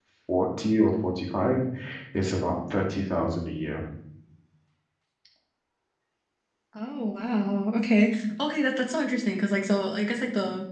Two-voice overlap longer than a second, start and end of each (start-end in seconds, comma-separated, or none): none